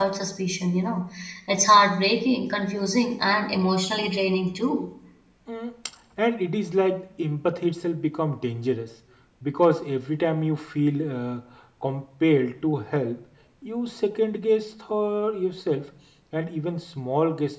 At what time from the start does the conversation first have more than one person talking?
none

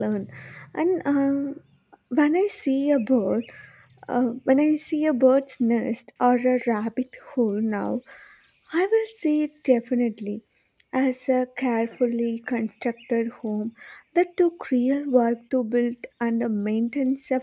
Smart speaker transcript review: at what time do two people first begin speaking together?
none

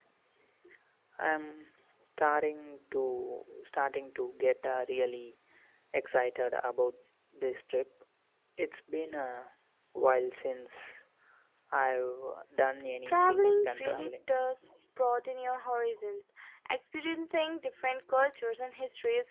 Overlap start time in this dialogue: 13.1 s

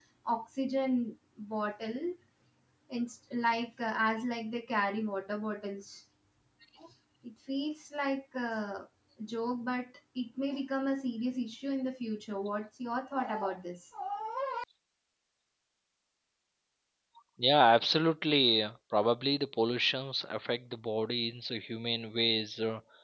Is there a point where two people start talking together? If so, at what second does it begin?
none

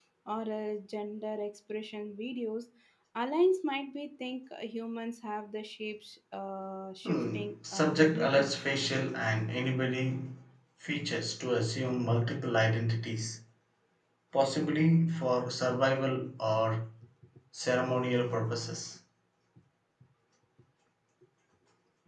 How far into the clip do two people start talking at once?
7.0 s

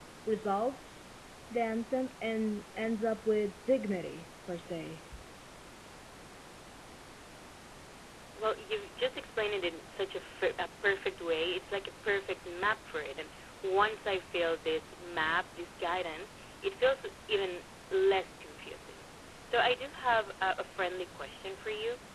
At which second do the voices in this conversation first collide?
none

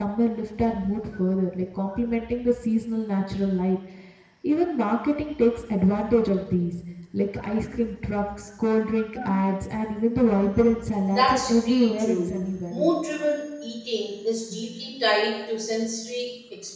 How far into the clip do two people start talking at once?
11.2 s

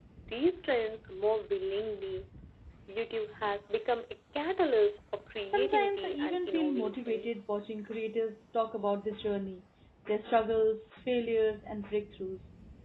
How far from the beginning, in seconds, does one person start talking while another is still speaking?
5.5 s

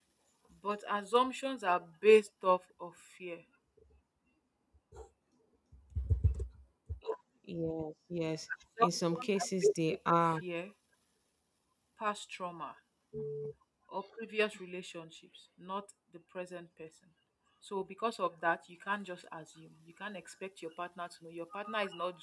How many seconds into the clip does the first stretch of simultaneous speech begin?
8.8 s

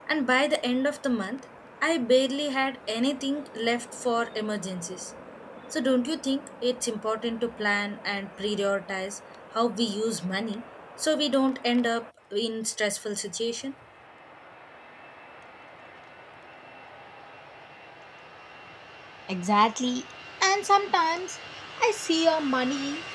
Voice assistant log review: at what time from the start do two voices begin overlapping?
none

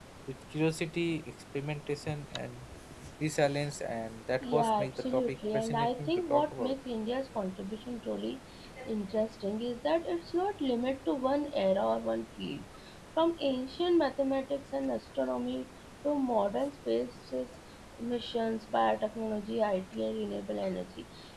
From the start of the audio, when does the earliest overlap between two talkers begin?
4.4 s

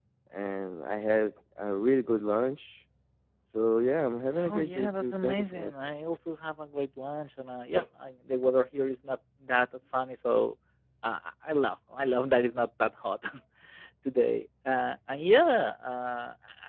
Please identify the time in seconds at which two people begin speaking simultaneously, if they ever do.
4.3 s

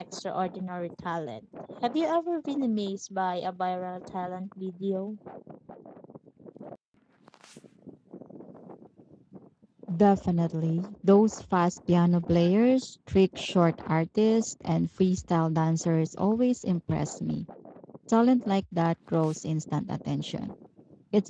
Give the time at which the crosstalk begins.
none

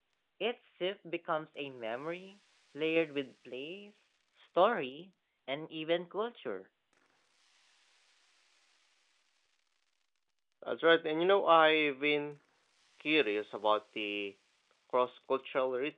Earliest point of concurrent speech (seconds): none

